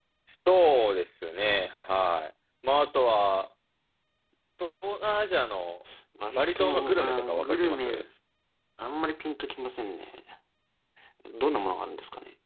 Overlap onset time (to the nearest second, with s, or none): 6 s